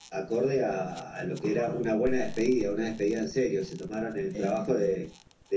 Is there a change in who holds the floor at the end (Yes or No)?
No